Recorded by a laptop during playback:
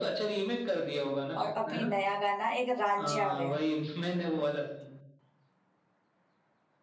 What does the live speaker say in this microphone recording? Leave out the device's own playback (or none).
और अभी नया गाना एक रांझिया वे